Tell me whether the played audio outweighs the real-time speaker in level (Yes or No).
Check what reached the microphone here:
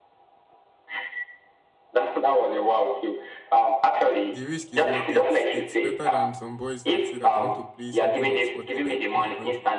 Yes